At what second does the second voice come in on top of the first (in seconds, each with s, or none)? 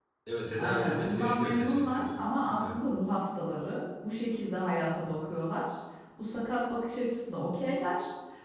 0.6 s